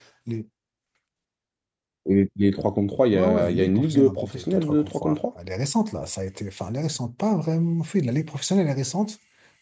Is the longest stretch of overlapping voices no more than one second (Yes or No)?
No